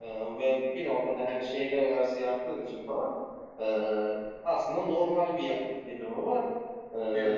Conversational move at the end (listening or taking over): listening